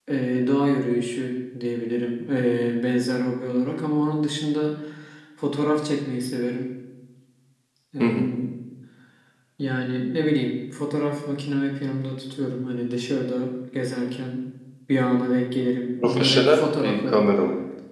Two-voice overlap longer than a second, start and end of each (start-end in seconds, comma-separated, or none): 16.0-17.2